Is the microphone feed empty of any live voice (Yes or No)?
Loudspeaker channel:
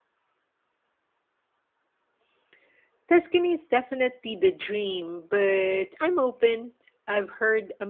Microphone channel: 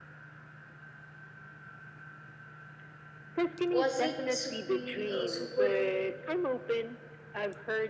No